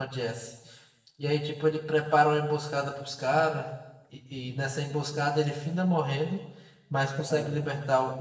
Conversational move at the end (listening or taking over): listening